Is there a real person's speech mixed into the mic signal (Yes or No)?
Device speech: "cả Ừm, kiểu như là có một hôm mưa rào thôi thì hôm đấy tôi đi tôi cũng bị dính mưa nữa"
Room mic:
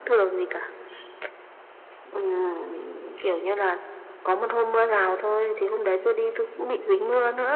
No